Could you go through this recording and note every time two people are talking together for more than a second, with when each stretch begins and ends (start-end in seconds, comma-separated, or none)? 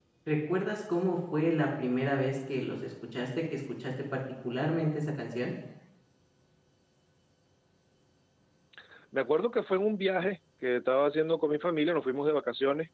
none